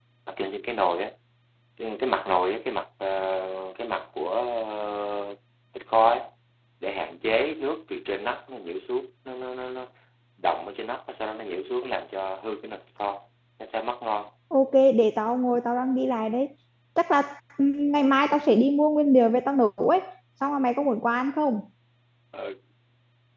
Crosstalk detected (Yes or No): No